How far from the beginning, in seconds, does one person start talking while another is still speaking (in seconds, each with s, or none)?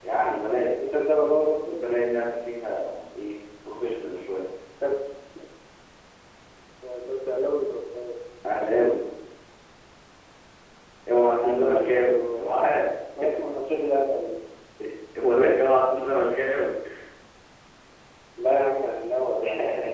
11.2 s